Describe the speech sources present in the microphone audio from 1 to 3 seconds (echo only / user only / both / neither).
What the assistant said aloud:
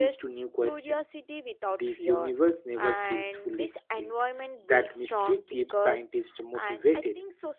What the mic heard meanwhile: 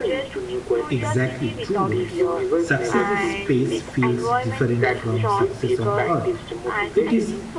both